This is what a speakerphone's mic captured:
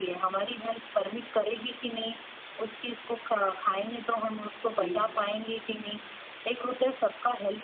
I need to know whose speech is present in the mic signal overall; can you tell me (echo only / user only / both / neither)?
both